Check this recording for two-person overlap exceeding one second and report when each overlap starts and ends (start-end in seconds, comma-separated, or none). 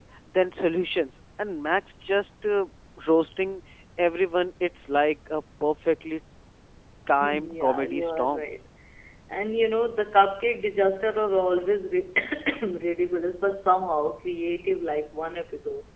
7.2-8.4